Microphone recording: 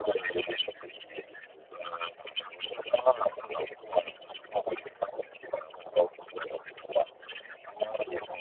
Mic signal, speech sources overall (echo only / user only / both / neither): echo only